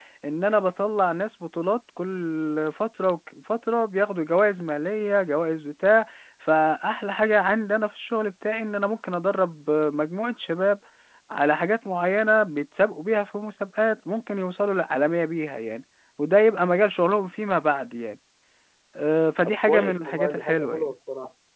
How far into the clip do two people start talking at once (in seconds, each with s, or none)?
19.4 s